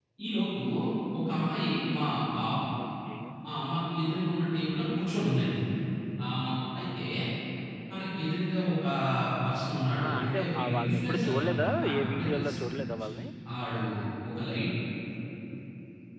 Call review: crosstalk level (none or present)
present